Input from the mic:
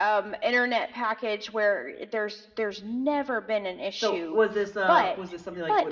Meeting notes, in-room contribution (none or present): present